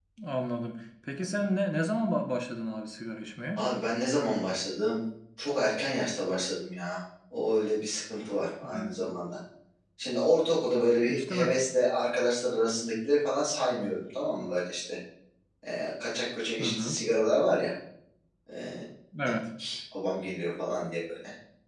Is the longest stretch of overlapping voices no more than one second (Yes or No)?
Yes